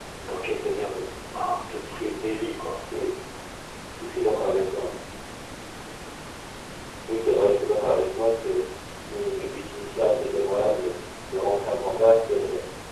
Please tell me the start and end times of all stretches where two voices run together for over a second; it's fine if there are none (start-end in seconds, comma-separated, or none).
none